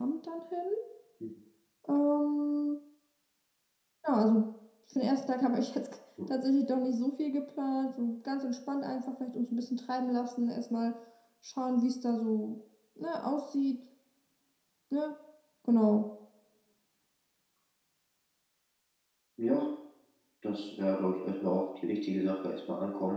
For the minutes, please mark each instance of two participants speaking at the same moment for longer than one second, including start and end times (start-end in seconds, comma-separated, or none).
none